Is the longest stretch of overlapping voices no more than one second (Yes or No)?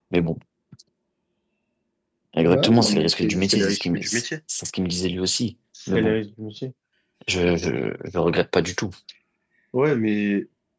No